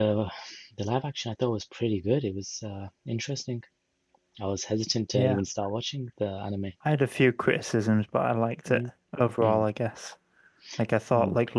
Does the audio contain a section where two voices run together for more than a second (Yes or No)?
No